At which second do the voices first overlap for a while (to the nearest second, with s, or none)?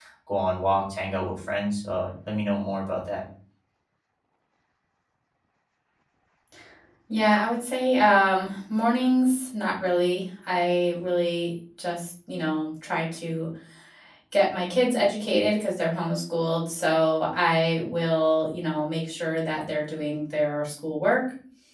none